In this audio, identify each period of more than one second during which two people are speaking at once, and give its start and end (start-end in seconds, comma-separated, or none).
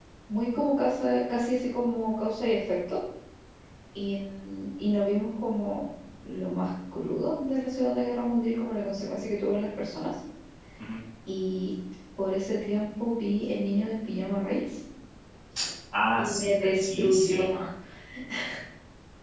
16.2-17.6